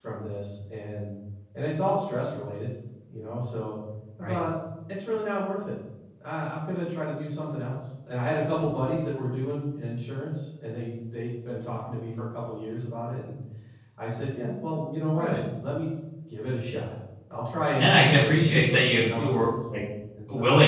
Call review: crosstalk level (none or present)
present